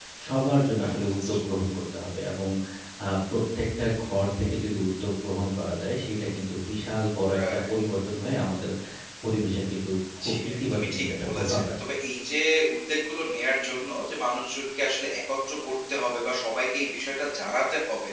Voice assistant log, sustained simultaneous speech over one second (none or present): present